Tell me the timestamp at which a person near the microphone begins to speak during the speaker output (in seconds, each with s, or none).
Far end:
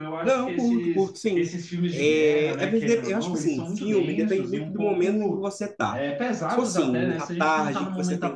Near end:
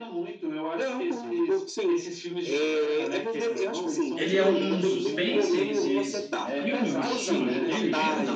4.1 s